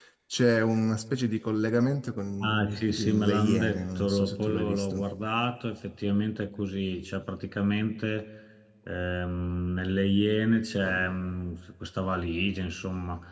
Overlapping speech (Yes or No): Yes